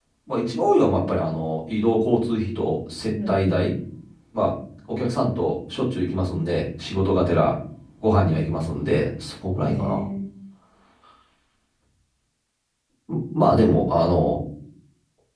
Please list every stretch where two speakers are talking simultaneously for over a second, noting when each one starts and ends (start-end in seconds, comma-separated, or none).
none